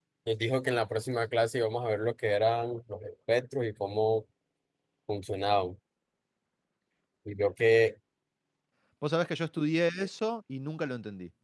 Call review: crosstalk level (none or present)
none